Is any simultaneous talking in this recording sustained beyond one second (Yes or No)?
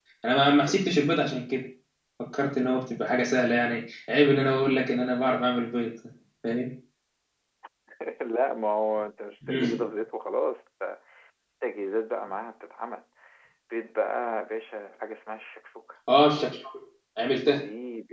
No